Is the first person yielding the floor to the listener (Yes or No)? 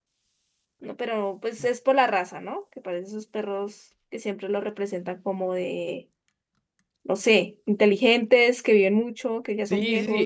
Yes